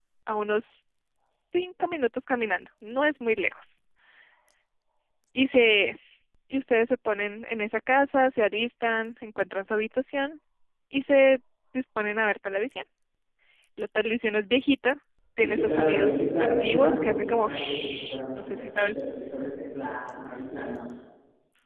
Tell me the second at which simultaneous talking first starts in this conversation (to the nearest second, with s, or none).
15 s